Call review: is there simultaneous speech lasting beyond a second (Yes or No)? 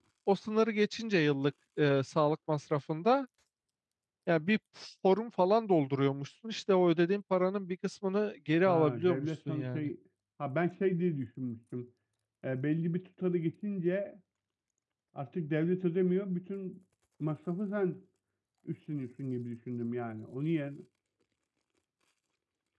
Yes